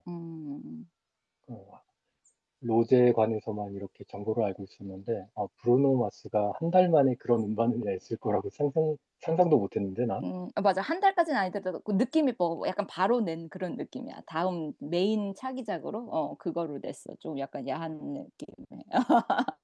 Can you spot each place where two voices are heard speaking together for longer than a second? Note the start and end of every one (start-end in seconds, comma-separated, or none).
none